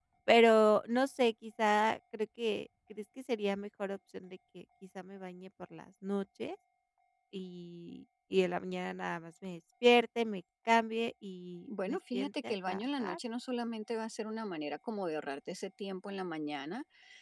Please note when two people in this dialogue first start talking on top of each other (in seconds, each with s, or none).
11.7 s